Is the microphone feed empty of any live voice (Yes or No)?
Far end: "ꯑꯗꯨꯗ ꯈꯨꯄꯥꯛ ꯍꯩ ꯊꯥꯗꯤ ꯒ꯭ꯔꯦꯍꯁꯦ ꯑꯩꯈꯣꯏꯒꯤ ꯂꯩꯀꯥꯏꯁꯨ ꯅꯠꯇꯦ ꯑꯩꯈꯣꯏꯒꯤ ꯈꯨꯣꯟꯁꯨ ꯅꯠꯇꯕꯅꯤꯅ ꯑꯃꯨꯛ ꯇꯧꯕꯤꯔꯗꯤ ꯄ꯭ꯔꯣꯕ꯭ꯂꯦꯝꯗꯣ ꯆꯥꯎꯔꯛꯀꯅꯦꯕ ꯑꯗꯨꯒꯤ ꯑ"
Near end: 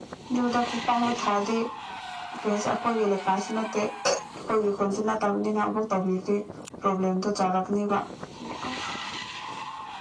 Yes